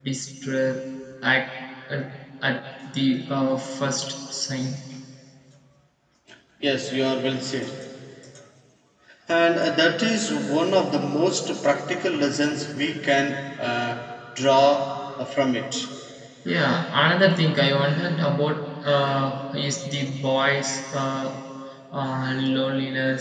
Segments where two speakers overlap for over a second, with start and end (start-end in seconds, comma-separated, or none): none